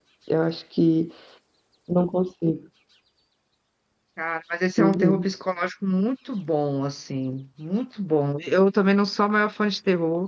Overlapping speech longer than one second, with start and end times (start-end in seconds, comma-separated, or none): none